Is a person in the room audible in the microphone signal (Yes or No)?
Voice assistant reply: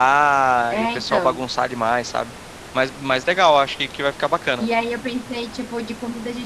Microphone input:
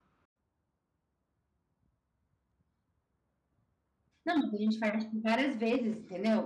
Yes